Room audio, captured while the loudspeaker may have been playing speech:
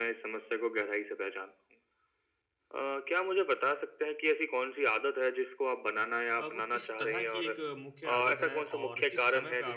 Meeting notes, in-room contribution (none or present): present